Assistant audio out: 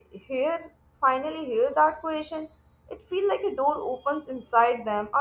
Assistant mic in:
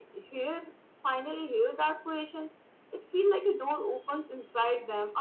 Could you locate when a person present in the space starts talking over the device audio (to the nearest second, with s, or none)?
none